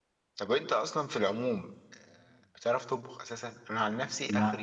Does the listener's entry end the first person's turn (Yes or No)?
No